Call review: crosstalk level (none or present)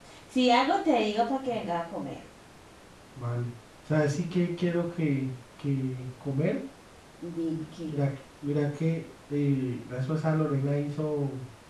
none